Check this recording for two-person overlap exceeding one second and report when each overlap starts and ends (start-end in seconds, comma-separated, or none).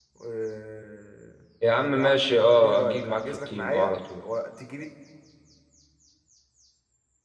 1.6-4.2